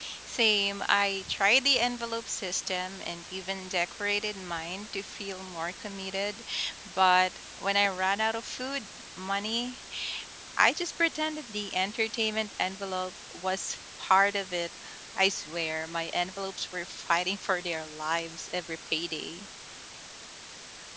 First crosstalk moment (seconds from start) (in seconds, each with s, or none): none